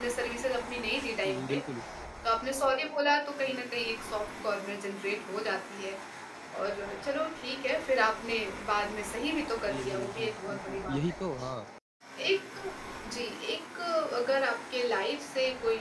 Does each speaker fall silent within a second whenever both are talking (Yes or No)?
No